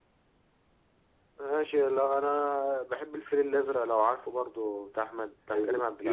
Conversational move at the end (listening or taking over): taking over